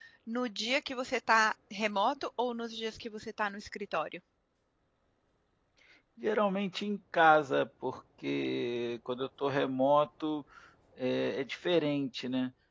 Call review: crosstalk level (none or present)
none